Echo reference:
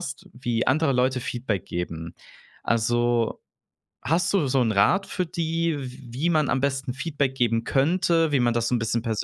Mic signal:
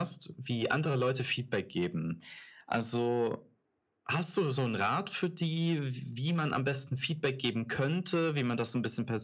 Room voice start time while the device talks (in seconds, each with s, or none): none